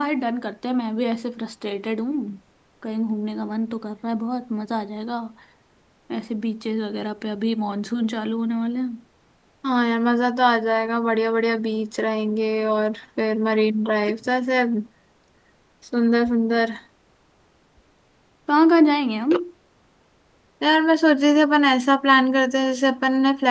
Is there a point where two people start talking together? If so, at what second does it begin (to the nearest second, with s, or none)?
none